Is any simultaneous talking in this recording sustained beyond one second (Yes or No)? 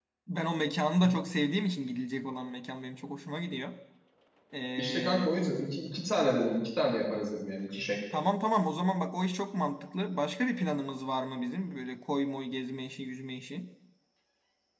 No